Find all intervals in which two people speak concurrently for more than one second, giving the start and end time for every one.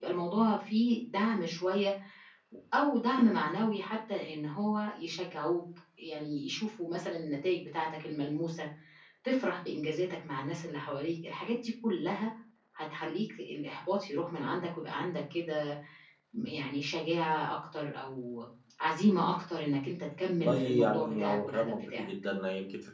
20.4-22.1

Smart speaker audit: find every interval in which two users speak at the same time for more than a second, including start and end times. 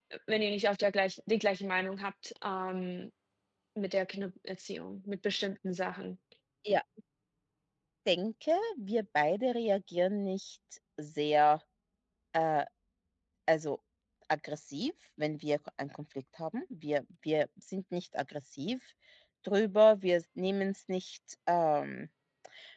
none

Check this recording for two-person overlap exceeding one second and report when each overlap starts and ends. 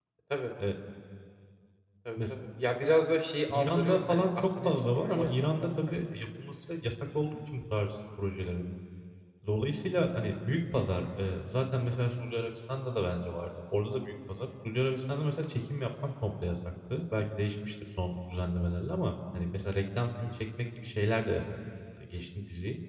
3.5-6.0

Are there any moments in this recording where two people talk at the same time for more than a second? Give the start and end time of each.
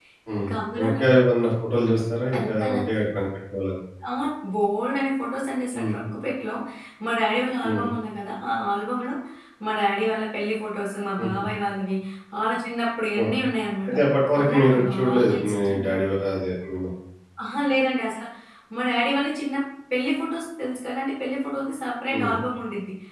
14.4-15.9

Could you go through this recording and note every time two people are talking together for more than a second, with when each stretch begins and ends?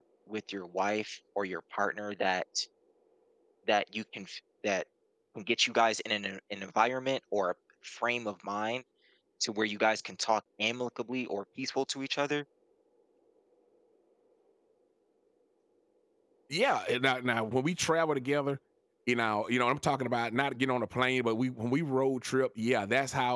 none

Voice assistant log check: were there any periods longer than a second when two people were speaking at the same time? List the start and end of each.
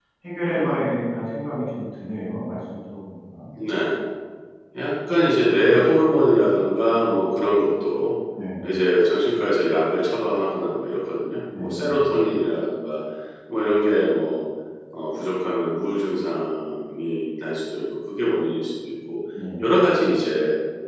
none

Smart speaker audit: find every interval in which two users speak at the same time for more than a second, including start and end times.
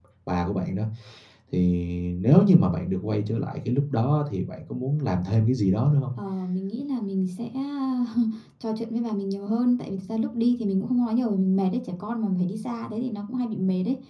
none

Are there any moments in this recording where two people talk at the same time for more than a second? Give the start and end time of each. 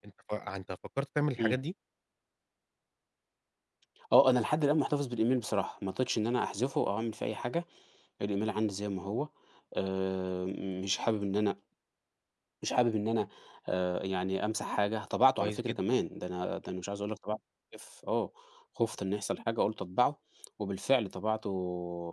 none

